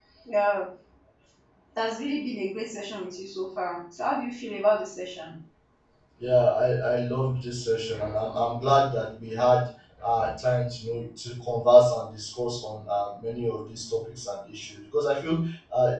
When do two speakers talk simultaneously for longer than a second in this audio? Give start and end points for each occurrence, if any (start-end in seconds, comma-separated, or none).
none